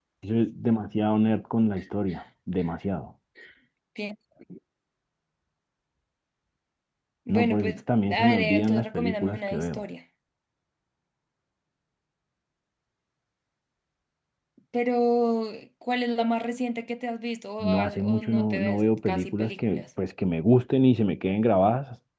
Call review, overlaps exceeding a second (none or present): present